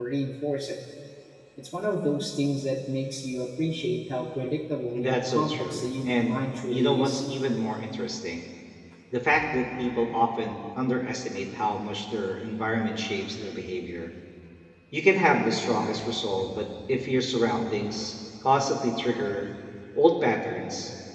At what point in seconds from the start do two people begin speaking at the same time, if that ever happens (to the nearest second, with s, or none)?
5 s